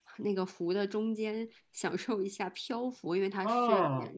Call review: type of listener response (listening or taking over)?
taking over